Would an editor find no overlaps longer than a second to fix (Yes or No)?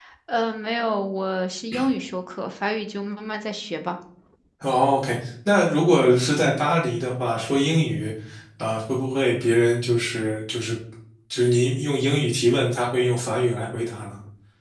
Yes